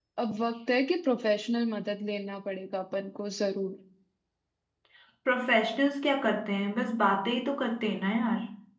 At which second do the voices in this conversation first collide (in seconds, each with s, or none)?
none